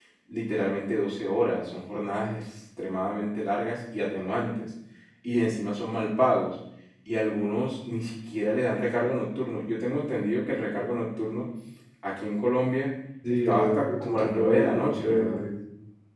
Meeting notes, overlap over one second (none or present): present